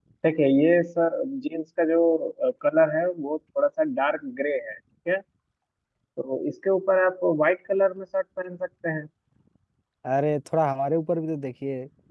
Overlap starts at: none

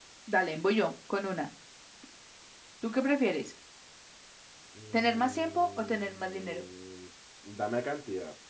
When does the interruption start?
4.9 s

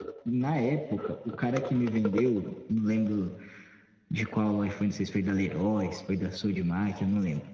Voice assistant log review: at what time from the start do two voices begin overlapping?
none

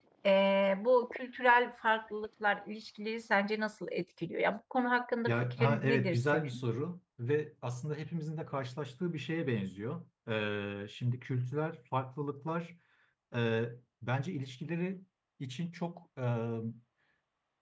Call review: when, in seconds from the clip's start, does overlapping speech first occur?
5.3 s

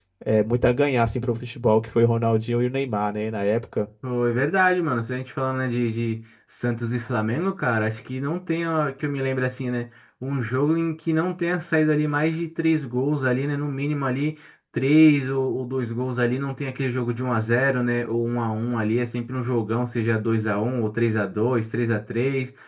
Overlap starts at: none

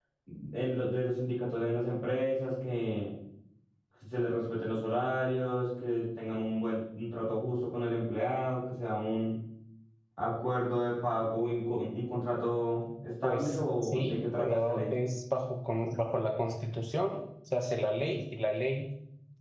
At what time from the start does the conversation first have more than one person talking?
13.2 s

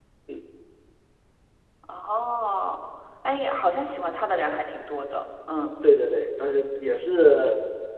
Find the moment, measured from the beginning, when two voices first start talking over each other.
none

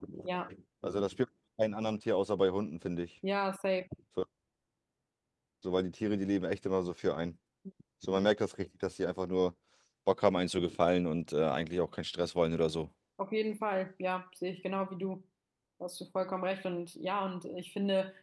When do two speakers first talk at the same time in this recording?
none

